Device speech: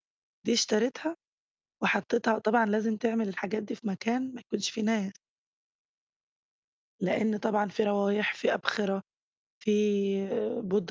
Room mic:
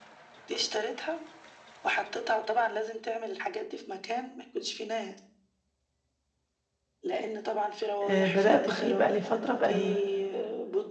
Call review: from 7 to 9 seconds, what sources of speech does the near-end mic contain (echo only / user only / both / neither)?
both